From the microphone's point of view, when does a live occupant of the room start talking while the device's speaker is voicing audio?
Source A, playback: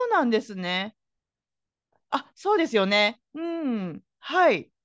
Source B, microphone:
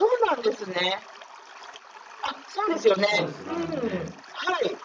2.6 s

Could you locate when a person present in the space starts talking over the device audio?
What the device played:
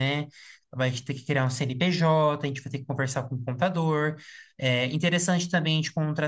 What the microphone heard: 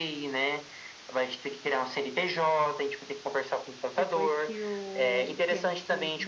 4.0 s

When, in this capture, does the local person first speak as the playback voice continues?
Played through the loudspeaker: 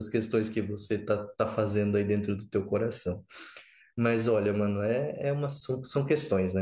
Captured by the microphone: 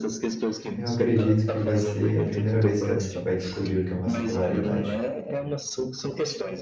0.8 s

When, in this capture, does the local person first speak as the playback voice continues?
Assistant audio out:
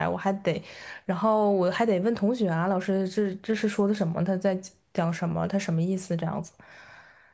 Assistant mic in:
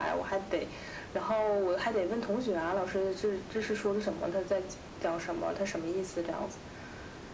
none

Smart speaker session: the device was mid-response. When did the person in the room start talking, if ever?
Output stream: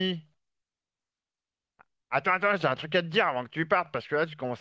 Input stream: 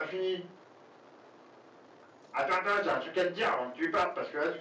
none

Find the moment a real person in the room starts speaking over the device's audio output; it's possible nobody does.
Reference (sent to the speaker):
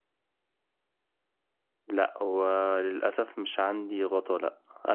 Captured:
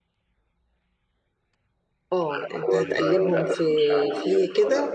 2.1 s

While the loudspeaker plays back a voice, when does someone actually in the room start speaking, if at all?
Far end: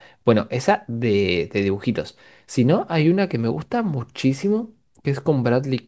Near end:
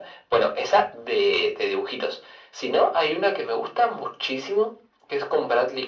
none

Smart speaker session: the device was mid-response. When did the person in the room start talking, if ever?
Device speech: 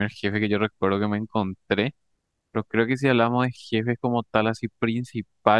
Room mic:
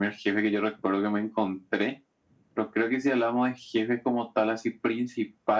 none

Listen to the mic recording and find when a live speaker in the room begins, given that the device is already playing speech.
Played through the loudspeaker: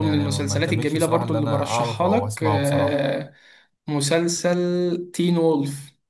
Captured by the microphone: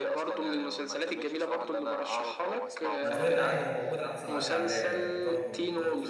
3.0 s

